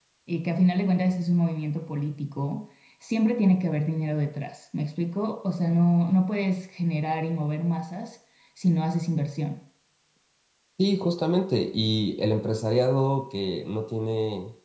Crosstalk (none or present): none